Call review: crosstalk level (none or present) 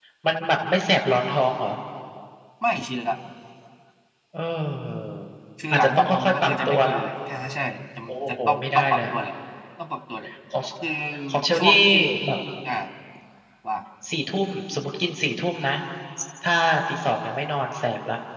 present